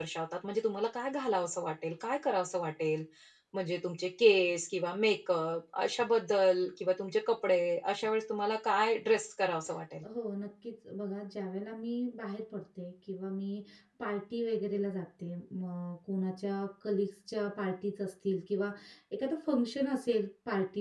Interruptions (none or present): none